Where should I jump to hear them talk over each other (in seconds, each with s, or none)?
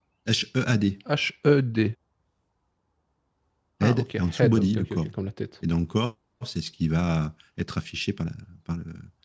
3.8 s